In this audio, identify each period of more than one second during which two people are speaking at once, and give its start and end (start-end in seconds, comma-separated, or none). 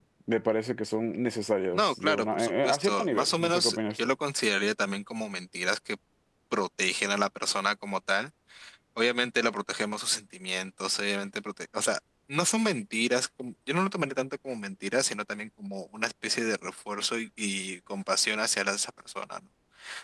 1.7-4.1